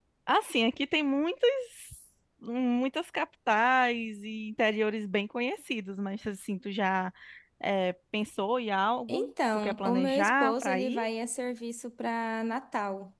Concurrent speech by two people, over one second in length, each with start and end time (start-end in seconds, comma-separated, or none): 9.1-11.0